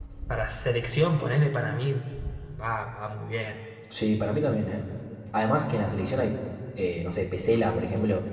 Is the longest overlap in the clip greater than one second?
No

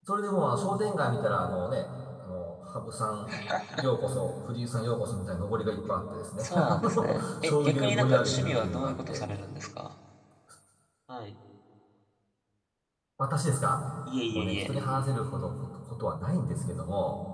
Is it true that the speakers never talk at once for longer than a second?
No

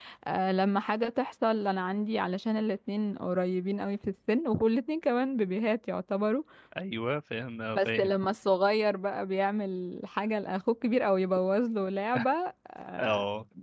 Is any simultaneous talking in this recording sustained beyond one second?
No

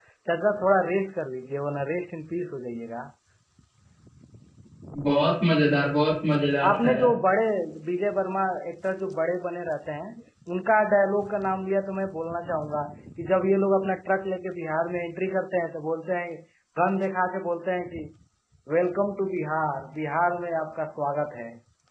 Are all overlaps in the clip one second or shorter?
Yes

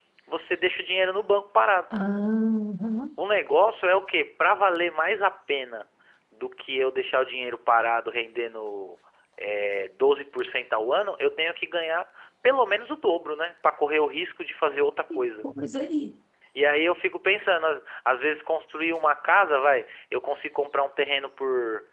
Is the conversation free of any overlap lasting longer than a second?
Yes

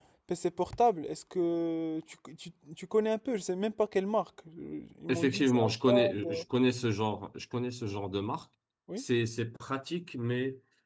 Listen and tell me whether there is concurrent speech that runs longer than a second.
Yes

